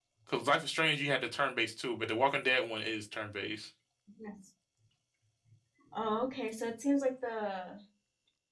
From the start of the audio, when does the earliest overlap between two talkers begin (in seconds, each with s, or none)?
none